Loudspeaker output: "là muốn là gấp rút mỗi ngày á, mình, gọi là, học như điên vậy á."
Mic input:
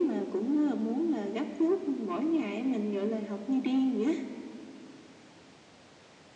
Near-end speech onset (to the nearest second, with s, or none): none